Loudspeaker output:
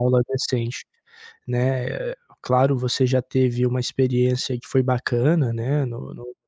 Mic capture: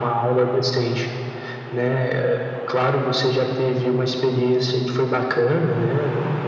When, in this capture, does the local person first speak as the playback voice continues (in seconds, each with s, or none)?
none